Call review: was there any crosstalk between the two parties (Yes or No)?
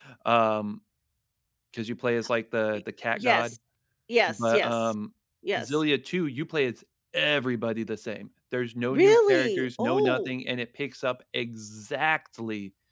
Yes